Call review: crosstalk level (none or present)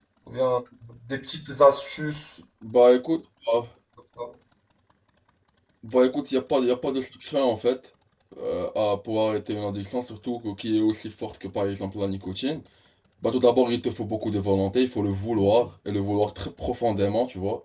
none